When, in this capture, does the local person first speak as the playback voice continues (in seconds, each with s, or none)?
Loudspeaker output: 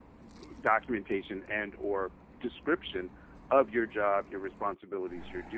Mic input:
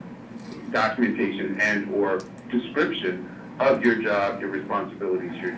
none